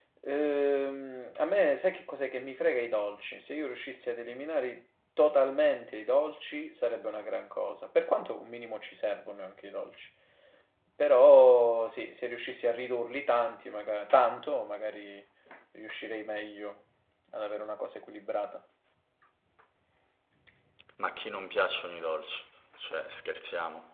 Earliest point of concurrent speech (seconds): none

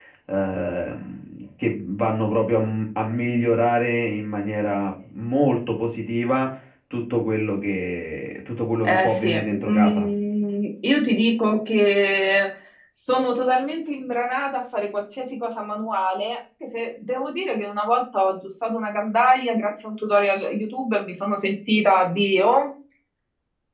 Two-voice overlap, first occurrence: 9 s

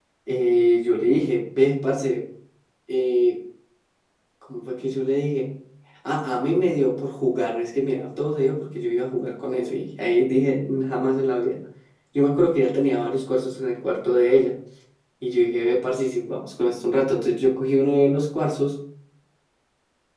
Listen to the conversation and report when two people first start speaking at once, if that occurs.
none

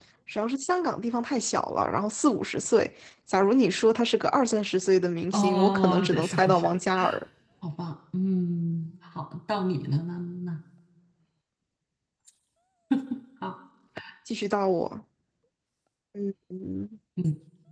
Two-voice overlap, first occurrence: 5 s

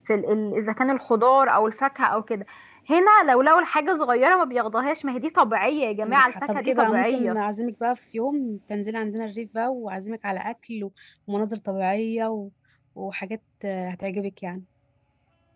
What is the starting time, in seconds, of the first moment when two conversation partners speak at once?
6 s

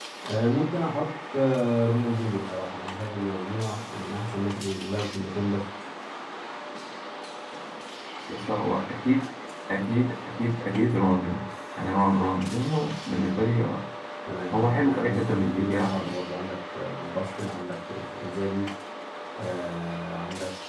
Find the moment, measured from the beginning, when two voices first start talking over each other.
15 s

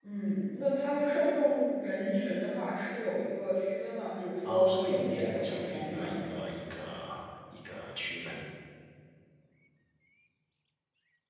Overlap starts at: 4 s

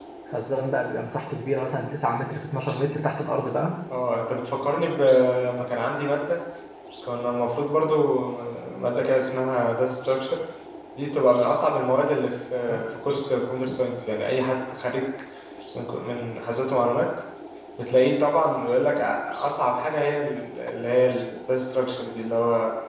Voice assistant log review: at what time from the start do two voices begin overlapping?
none

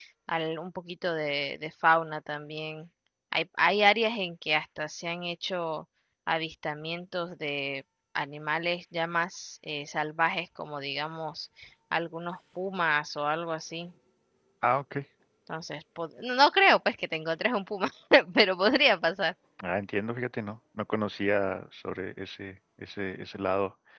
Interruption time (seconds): none

